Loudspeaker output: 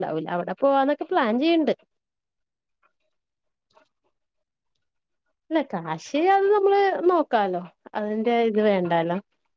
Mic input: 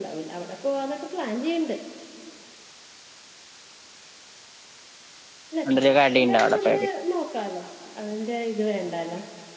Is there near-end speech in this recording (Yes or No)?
Yes